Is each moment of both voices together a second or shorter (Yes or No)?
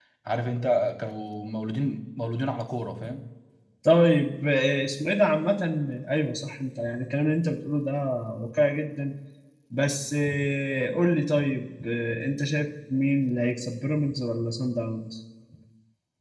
Yes